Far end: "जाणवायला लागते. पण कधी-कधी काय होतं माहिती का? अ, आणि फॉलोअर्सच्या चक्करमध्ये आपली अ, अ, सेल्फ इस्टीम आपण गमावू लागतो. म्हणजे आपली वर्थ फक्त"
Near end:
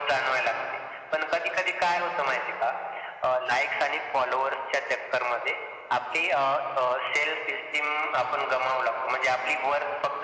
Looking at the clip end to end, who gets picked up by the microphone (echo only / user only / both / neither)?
echo only